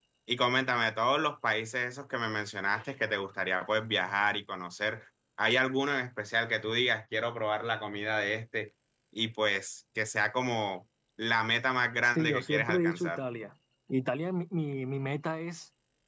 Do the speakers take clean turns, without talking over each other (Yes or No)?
No